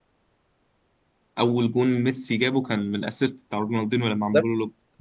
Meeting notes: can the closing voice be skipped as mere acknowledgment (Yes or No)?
No